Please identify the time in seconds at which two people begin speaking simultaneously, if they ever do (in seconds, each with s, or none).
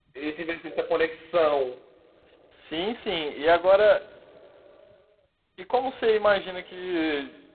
none